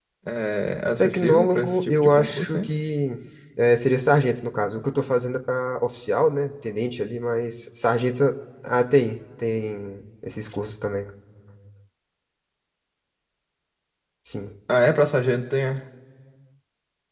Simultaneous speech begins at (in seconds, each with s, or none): 1.0 s